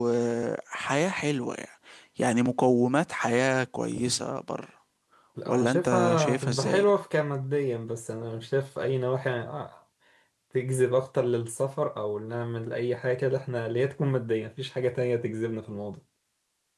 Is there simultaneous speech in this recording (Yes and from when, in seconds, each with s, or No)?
Yes, from 5.5 s